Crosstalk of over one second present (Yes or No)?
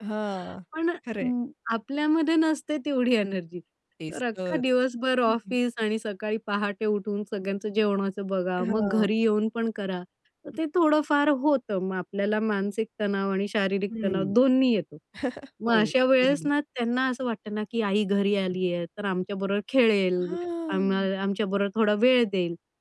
No